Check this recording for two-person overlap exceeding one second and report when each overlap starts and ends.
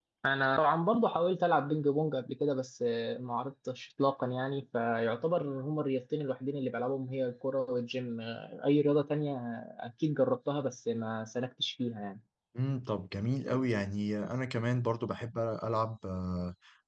none

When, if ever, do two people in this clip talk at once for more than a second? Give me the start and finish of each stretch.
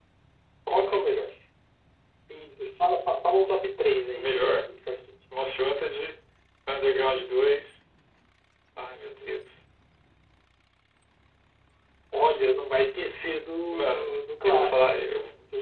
13.7-15.0

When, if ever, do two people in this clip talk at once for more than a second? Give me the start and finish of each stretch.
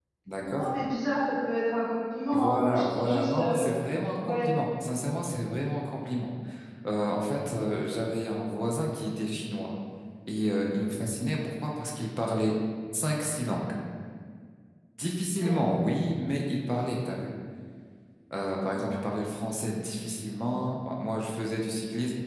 2.3-3.8

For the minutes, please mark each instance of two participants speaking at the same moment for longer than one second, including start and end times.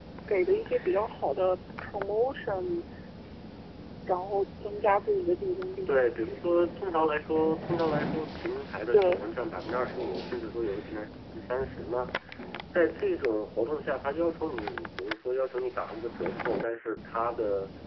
none

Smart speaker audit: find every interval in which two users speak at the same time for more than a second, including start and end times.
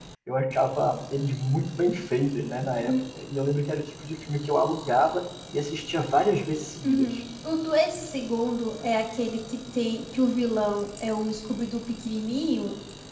none

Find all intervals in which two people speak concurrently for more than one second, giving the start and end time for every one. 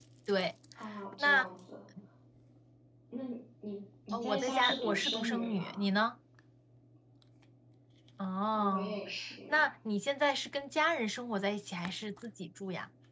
4.1-5.8

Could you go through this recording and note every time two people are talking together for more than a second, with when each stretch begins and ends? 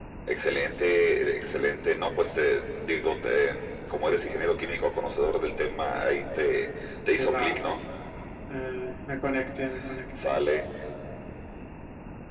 none

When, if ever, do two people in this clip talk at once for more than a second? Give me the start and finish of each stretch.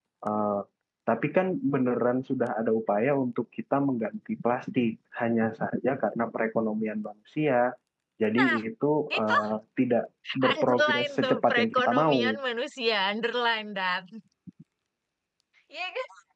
10.6-12.2

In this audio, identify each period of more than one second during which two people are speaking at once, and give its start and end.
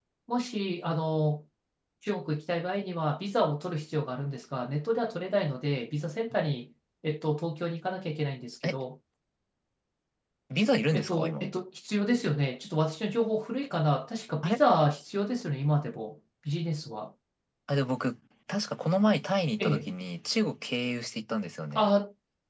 none

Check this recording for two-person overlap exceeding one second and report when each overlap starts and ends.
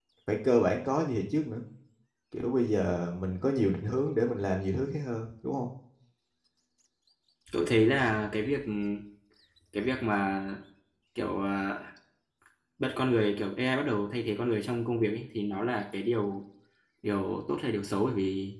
none

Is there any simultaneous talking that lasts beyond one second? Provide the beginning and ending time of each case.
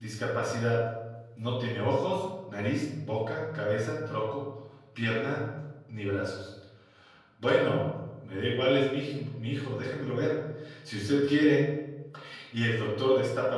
none

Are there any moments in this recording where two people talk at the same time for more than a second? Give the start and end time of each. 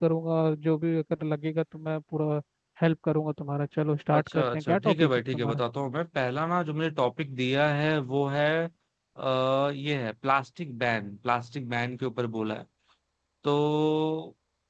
4.1-5.6

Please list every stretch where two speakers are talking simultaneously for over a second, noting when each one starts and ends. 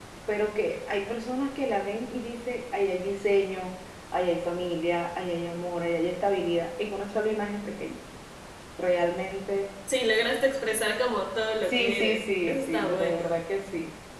11.6-13.3

